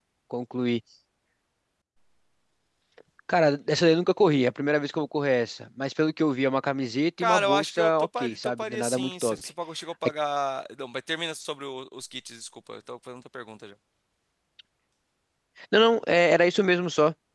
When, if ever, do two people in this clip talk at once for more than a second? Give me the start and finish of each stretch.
7.2-9.4

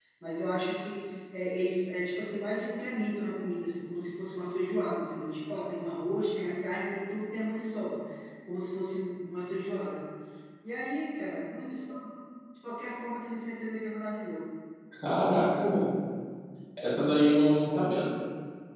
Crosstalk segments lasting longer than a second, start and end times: none

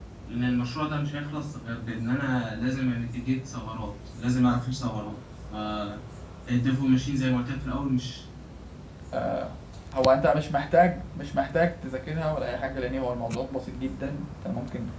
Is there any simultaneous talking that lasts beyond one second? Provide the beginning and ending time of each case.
none

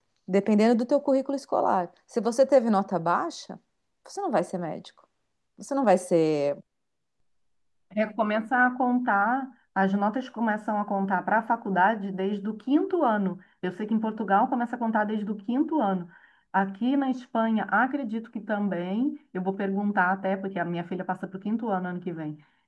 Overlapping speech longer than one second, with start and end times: none

